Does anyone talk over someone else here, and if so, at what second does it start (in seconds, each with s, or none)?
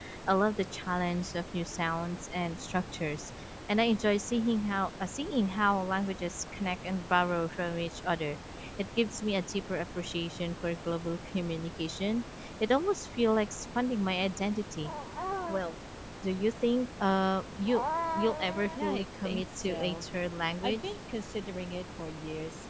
18.8 s